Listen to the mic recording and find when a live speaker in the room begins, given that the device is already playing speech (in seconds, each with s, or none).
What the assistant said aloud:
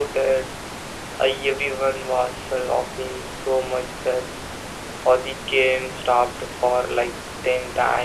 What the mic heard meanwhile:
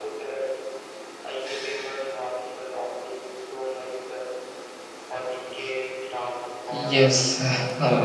6.7 s